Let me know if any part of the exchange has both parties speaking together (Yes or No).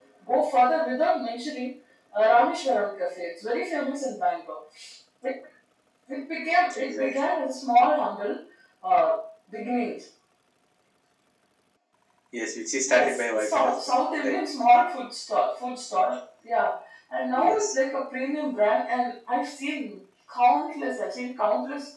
Yes